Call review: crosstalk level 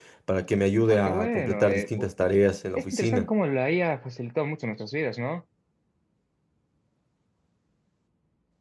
present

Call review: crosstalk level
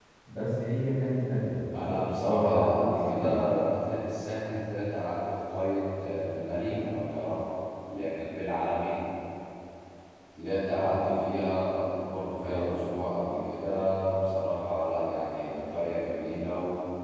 present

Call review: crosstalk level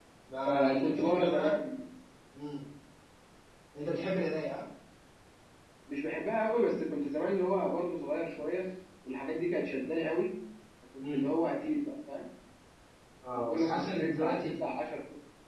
present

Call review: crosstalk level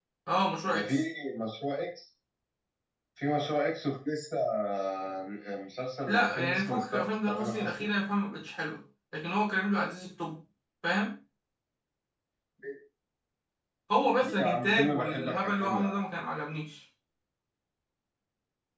present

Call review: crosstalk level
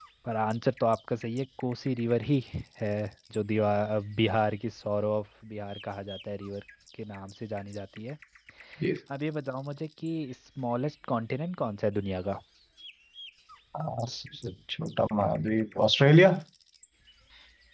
none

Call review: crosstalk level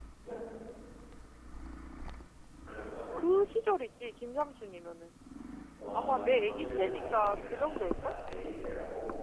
present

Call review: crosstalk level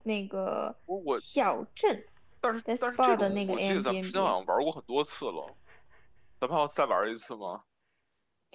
present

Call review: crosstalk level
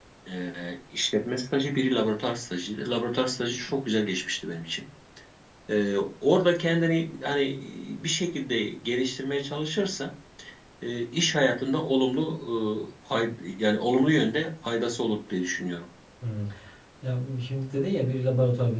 none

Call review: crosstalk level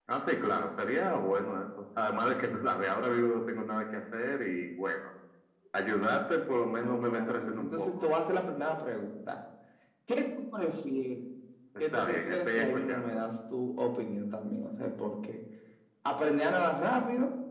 present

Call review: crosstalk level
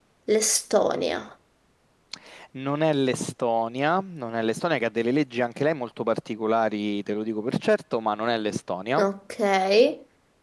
none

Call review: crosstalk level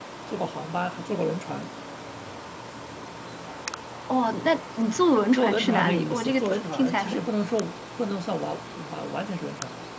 present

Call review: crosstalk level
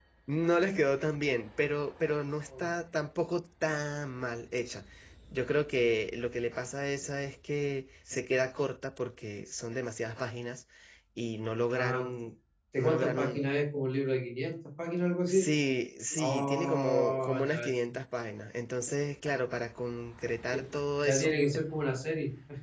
present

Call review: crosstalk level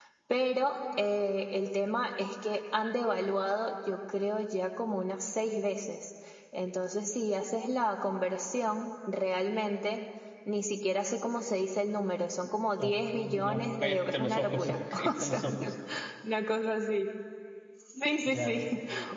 present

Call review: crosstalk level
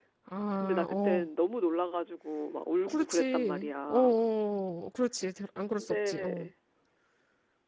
present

